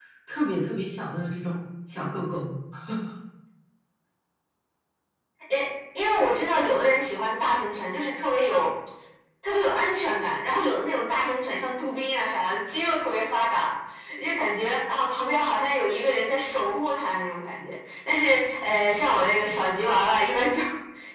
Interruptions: none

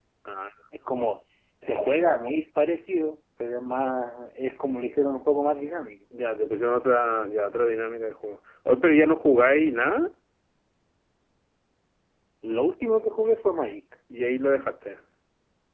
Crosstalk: none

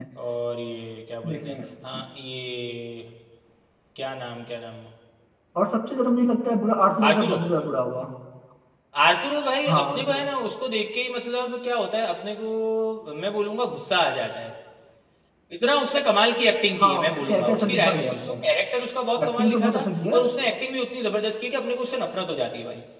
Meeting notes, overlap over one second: present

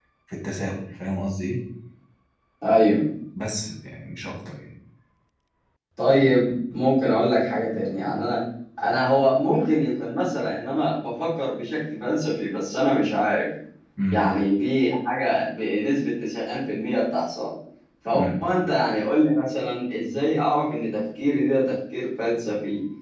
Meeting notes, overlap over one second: none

